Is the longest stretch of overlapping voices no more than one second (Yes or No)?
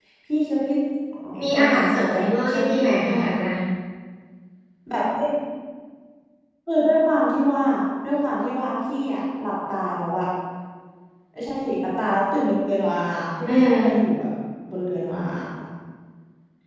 No